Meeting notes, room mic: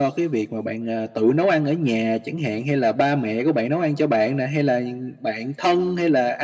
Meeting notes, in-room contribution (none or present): none